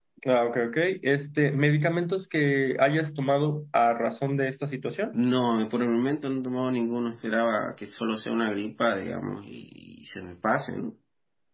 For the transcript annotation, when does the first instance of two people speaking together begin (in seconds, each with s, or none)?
none